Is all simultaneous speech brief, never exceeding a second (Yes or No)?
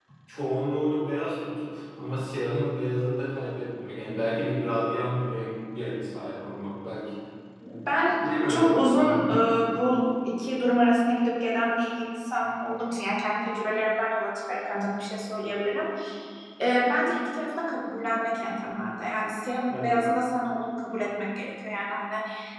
Yes